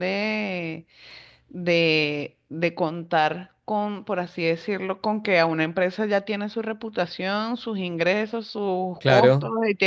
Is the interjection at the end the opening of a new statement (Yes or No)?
No